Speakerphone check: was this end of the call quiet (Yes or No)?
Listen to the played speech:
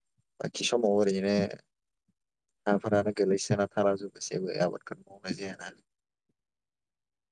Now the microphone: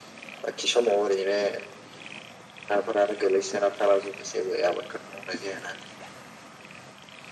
Yes